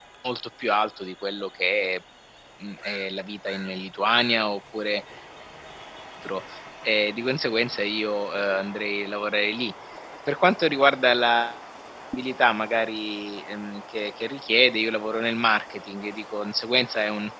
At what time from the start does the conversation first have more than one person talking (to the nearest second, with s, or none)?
none